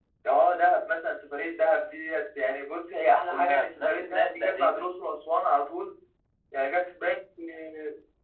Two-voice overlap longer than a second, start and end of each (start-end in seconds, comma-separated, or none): 3.2-5.0